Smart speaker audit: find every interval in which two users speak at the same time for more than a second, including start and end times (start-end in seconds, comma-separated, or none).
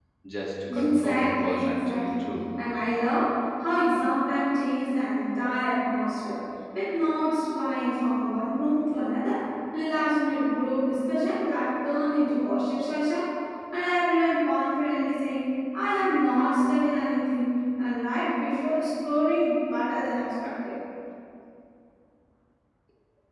0.7-2.3